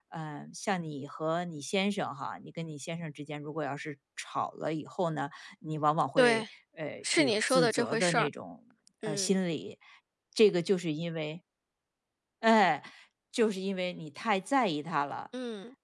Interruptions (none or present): present